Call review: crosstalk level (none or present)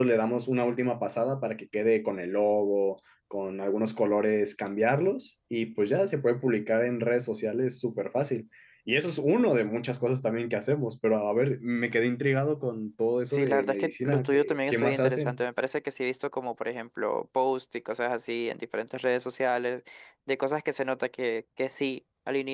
present